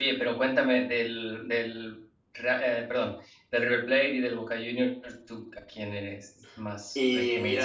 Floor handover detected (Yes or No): Yes